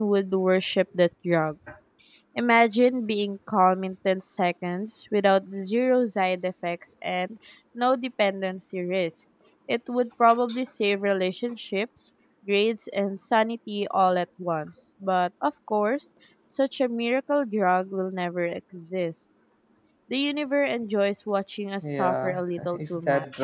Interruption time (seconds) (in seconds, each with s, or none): 21.8 s